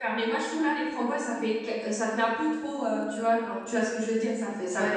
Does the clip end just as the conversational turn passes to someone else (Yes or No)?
Yes